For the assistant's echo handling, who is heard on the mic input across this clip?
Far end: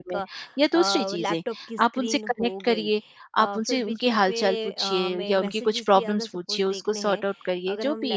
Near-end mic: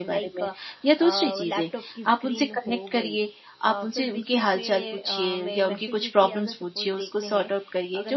echo only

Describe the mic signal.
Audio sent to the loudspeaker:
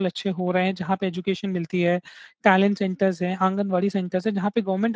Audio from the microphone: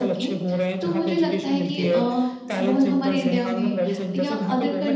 both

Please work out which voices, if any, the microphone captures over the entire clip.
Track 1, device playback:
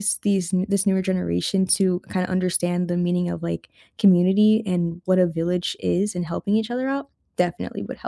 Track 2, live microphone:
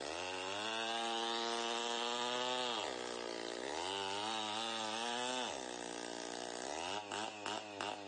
neither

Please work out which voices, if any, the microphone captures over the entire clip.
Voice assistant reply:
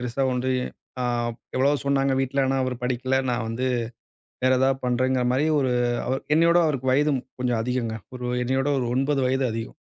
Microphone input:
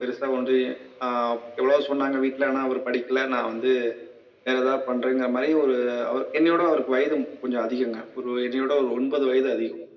echo only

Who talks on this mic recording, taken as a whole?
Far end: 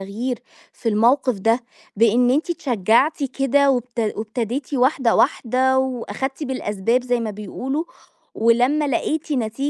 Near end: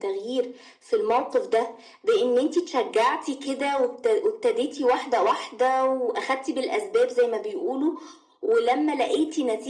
echo only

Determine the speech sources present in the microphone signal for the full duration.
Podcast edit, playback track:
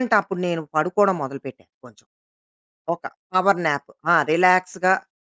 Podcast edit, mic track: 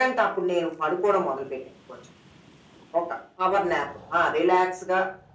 echo only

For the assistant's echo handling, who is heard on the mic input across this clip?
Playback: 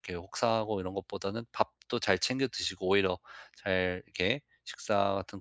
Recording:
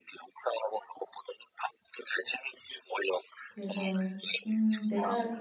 both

